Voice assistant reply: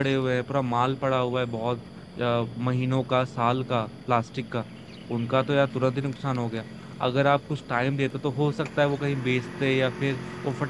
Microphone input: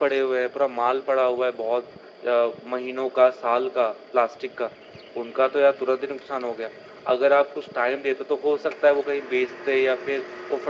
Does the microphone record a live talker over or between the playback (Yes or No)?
No